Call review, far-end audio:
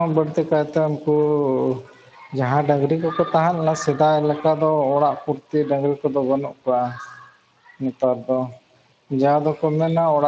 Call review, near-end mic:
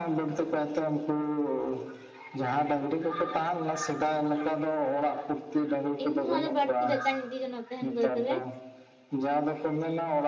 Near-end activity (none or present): present